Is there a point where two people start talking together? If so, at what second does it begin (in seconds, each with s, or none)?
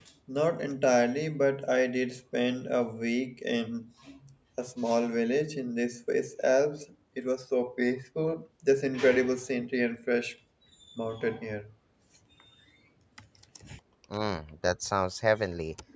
none